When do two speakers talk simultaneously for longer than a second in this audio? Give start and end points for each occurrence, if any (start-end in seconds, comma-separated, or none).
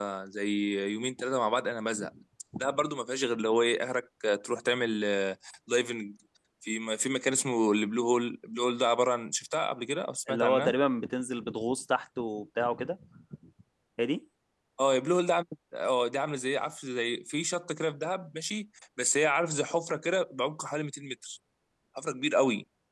none